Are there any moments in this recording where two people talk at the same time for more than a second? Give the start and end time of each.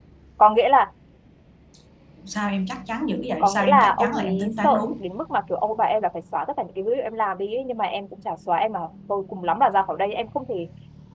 3.4-5.0

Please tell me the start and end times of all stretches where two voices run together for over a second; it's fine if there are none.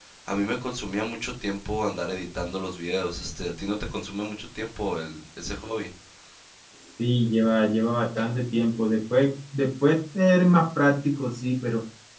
none

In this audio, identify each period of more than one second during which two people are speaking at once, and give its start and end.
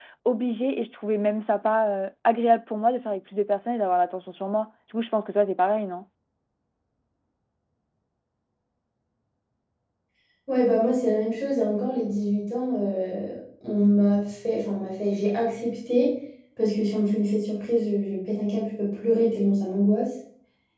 none

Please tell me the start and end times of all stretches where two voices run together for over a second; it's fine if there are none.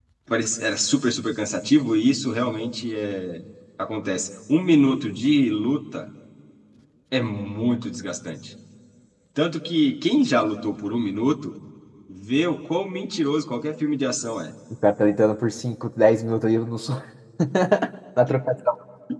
none

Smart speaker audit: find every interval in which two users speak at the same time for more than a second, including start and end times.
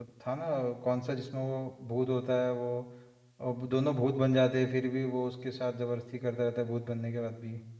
none

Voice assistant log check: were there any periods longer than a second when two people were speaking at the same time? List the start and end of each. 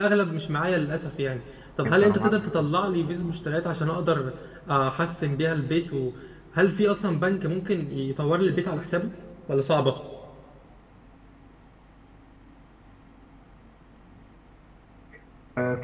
1.9-3.2

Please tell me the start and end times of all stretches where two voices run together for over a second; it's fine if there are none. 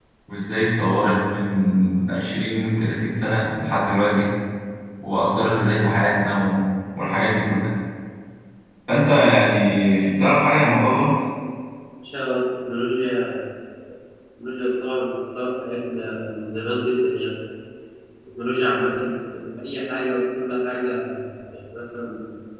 none

